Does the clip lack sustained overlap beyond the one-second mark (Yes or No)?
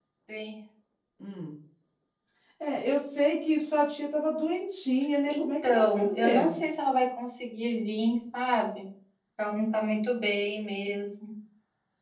No